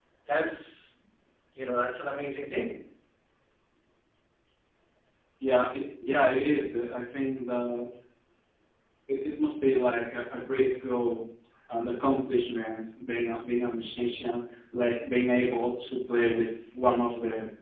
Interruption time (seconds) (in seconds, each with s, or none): none